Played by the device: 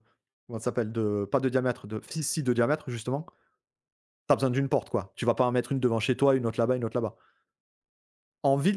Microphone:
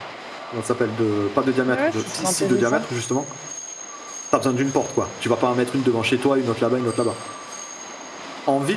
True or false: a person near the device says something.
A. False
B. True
B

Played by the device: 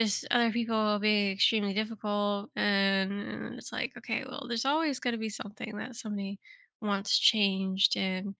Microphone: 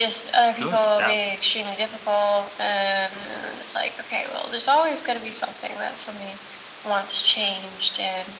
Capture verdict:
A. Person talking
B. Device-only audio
A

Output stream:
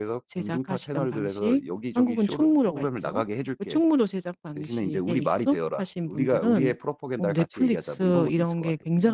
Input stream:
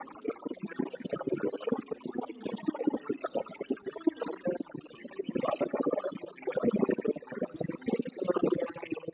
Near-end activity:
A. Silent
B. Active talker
A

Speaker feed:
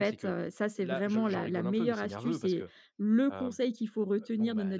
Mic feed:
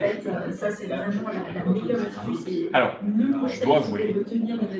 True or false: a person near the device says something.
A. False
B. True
B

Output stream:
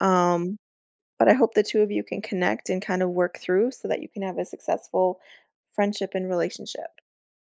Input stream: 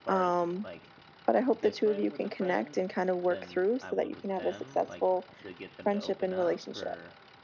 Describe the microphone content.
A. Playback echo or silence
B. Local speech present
B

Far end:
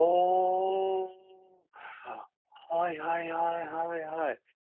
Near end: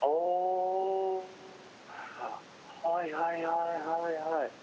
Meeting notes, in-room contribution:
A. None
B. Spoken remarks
A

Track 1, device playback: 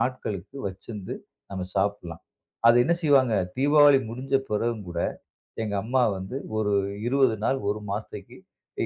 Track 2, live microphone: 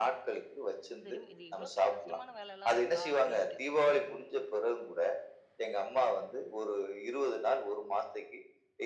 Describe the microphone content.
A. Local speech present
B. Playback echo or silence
A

